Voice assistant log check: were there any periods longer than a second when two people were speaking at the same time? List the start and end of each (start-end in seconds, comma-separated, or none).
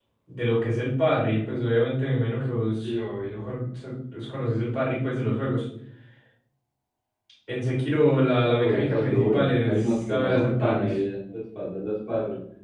8.6-11.0